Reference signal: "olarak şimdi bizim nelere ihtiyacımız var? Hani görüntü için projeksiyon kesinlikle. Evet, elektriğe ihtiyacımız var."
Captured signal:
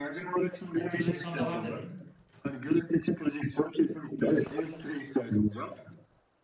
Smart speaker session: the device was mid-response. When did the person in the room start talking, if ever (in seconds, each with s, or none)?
0.7 s